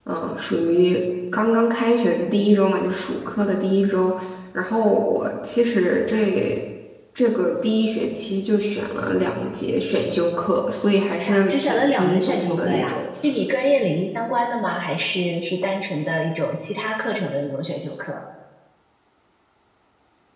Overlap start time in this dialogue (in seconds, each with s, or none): 11.3 s